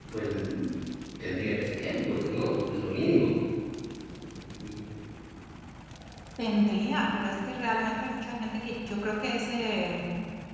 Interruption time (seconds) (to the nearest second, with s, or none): none